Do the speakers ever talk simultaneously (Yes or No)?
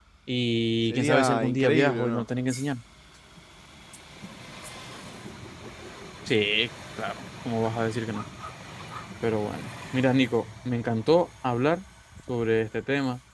Yes